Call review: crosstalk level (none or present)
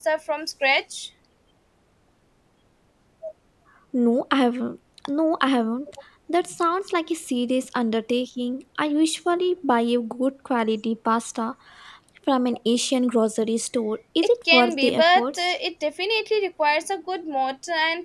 present